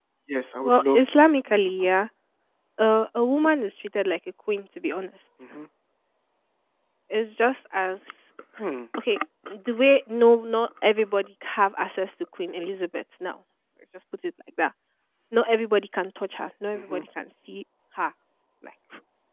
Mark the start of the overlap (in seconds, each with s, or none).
0.6 s